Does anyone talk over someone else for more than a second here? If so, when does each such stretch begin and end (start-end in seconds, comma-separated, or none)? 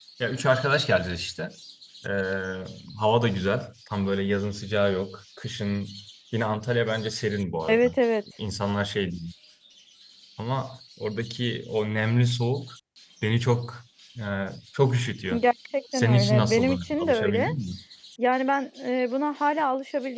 15.9-17.5